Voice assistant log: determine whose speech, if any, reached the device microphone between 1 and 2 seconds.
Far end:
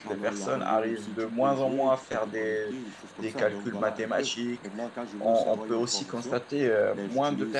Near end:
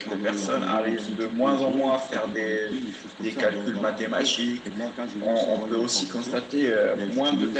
echo only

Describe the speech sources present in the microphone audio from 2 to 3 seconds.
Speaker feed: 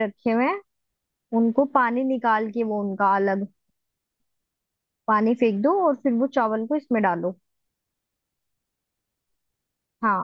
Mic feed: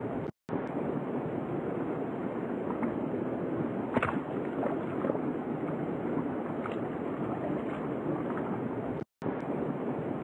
neither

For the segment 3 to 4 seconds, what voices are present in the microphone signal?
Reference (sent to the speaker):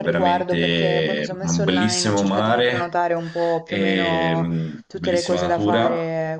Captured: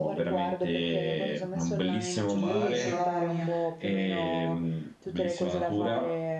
both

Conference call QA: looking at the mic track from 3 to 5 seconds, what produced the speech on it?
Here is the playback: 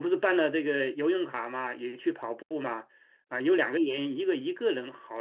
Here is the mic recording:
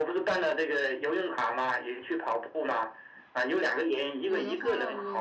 both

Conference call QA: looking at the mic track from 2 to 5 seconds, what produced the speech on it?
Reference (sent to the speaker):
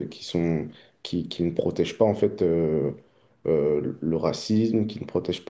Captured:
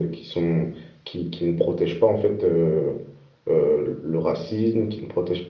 echo only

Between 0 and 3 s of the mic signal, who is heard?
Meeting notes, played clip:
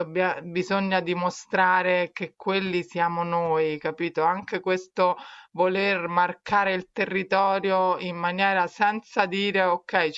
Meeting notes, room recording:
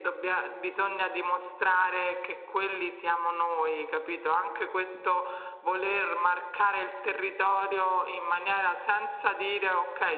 echo only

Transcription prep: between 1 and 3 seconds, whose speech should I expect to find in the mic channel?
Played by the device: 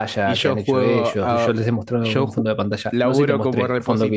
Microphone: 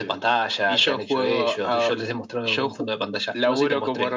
echo only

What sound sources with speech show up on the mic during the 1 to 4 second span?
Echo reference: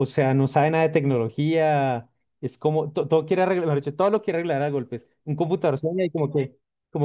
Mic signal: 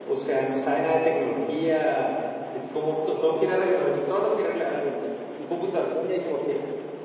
echo only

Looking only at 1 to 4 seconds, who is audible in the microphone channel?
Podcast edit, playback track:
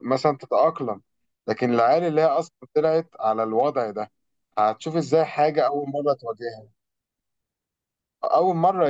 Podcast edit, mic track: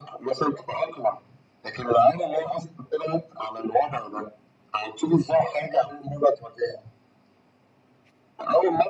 echo only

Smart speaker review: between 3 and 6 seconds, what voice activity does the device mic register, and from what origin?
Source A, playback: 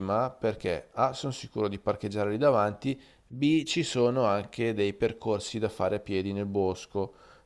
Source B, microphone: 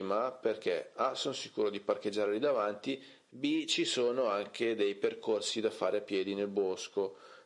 echo only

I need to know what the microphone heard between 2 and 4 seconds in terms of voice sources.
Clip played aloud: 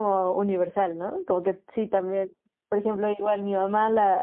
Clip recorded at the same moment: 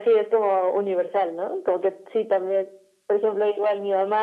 echo only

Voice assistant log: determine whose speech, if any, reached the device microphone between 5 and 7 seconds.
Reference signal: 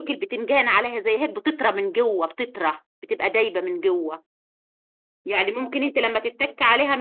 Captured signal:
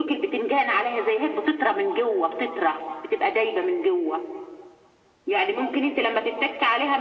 echo only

